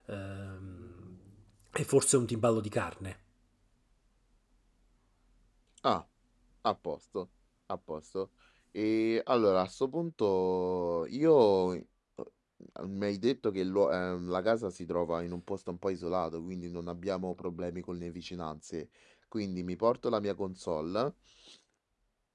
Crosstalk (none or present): none